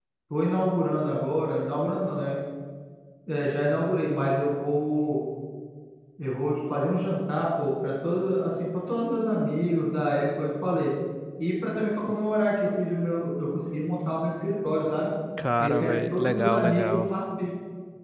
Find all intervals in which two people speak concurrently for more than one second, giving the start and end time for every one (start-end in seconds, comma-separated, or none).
15.6-17.0